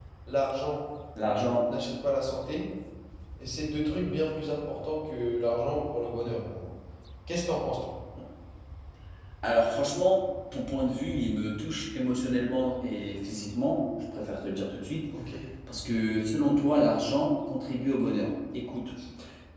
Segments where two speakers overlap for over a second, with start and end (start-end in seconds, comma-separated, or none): none